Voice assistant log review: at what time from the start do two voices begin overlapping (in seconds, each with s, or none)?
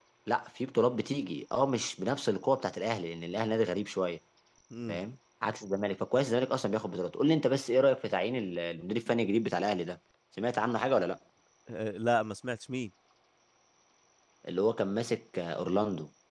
none